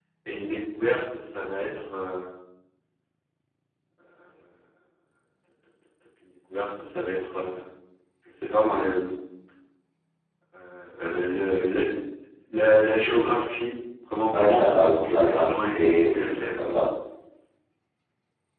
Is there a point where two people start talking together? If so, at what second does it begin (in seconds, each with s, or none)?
14.3 s